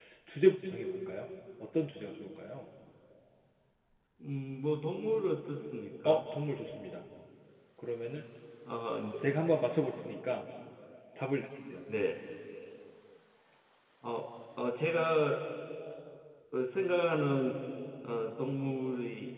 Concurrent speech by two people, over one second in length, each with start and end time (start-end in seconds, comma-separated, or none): none